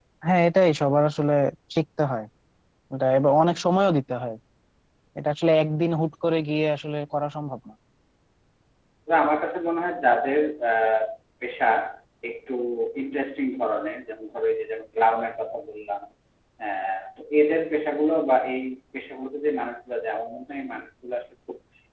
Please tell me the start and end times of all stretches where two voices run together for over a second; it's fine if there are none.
none

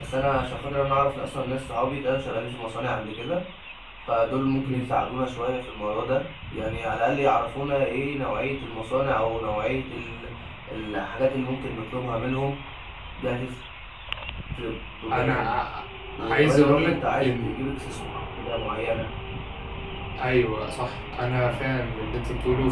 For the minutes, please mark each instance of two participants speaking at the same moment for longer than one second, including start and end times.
16.2-17.6

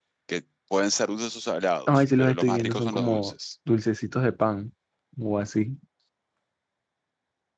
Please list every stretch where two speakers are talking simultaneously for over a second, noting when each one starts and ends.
1.9-3.3

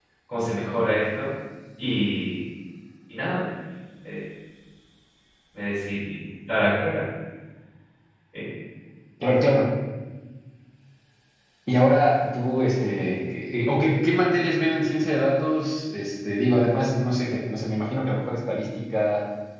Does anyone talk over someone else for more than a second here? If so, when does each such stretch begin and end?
none

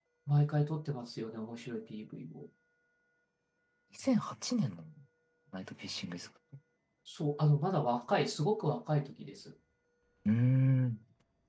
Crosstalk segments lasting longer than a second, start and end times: none

